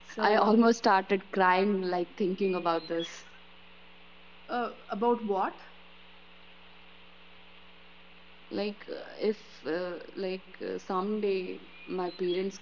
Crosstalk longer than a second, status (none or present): none